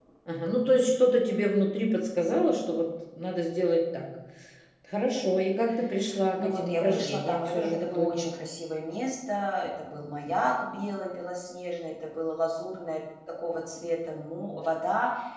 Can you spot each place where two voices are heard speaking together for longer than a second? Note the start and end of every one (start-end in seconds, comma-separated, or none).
6.4-8.2